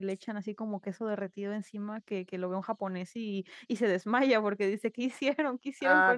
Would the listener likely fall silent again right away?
No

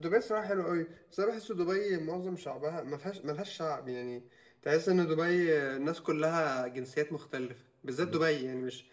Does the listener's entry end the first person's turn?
No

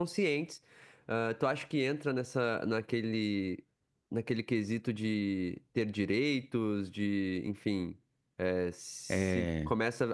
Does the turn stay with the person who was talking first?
Yes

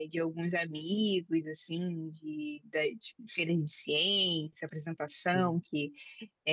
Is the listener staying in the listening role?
Yes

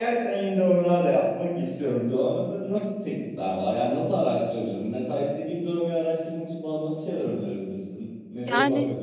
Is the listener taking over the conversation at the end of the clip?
Yes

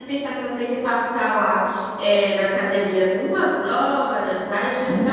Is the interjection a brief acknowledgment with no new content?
Yes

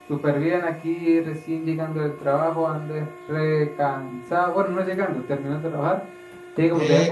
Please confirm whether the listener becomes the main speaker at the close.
No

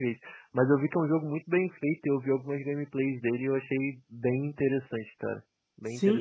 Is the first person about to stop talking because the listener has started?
Yes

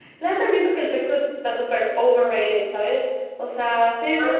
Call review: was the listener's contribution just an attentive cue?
No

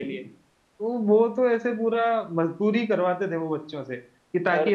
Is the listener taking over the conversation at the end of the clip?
No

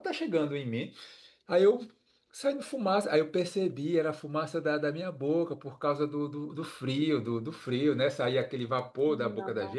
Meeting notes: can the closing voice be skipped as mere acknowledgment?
Yes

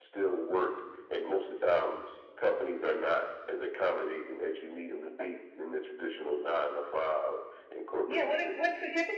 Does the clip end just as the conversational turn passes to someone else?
Yes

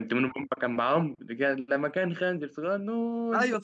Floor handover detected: Yes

